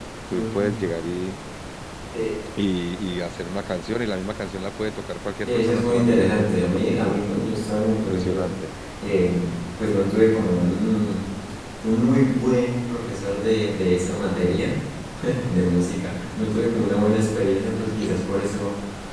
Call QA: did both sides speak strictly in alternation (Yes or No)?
No